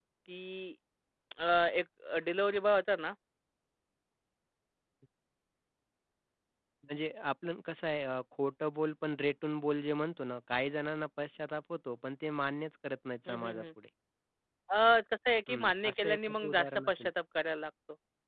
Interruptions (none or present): present